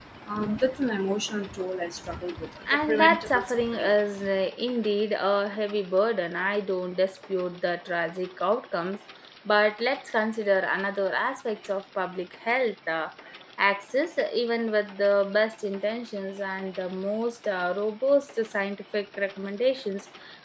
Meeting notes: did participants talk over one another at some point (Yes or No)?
Yes